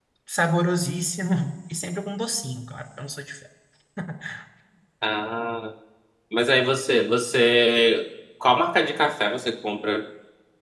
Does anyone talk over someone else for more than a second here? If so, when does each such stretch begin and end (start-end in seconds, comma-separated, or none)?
none